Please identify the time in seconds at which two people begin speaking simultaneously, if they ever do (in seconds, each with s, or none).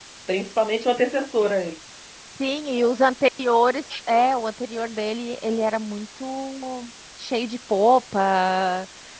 none